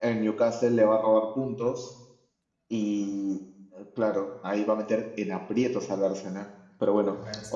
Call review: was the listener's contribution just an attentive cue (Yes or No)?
Yes